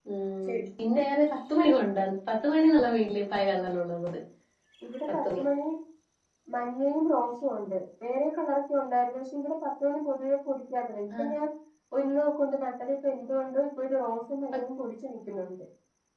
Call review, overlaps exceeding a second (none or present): none